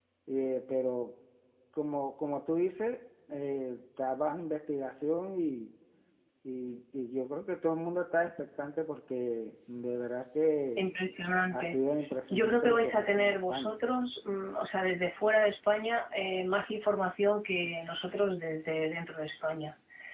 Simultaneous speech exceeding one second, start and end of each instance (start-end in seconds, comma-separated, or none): 12.3-13.8